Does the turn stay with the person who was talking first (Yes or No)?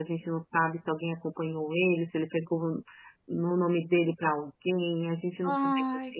Yes